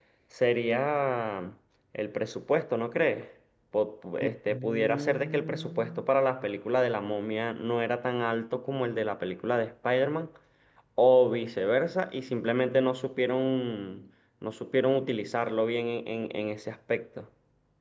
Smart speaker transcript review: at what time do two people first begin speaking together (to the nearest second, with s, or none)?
4 s